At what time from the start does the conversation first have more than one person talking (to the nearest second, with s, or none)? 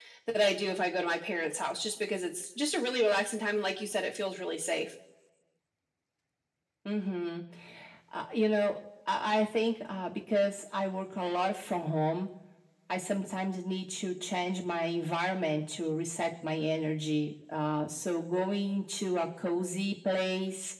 none